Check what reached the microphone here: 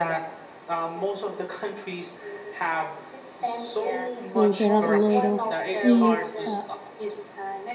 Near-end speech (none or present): present